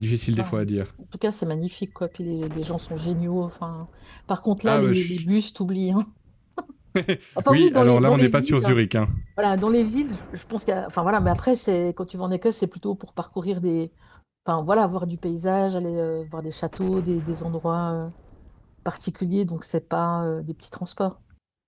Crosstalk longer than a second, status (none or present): present